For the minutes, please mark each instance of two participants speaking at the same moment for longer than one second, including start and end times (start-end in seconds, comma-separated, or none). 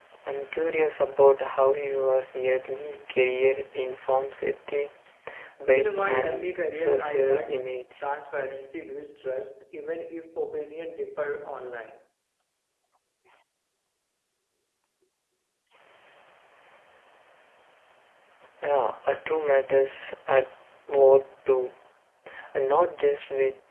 5.7-8.0